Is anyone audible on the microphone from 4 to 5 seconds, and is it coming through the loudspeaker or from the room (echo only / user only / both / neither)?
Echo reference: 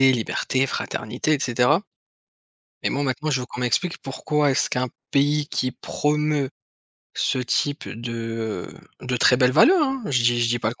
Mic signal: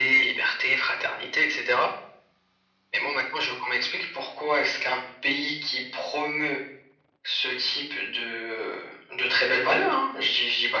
echo only